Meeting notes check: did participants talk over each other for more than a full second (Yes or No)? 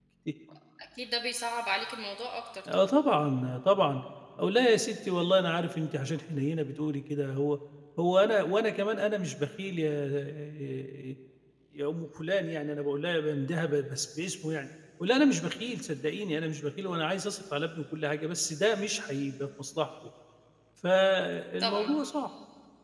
No